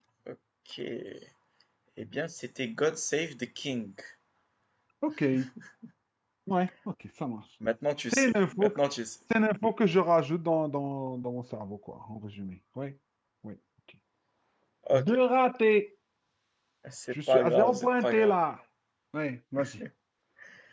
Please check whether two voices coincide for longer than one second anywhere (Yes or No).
Yes